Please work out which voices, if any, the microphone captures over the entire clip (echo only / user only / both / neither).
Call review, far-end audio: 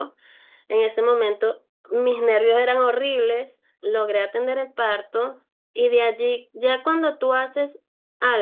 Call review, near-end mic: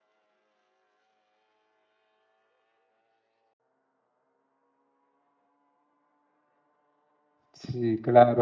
user only